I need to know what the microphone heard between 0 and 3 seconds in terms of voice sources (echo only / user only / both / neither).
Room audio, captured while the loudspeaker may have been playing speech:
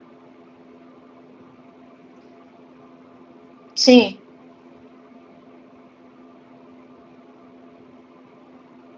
neither